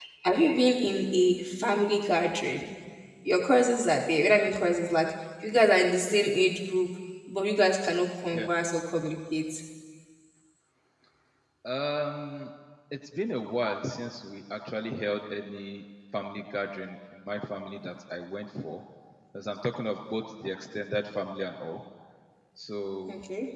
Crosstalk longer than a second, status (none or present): none